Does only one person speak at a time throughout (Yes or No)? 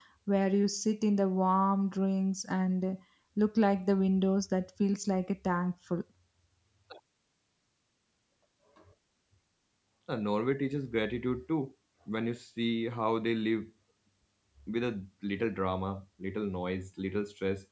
Yes